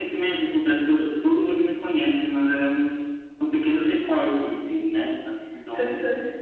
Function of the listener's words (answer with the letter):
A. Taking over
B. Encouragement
A